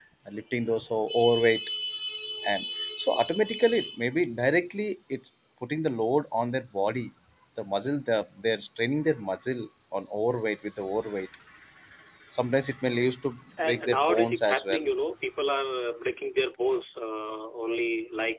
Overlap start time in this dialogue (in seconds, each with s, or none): 13.6 s